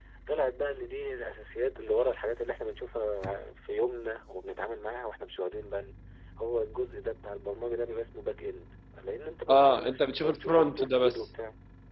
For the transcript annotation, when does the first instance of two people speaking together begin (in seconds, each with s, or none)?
9.5 s